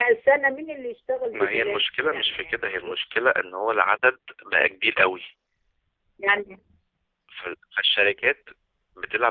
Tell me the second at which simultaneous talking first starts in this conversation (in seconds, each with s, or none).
1.3 s